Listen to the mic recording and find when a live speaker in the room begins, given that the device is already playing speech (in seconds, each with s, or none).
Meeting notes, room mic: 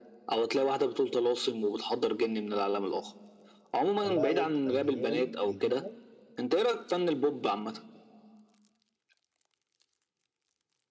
4.0 s